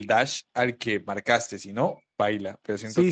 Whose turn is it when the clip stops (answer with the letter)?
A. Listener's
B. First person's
A